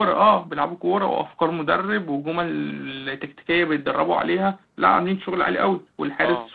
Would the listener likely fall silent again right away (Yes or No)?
Yes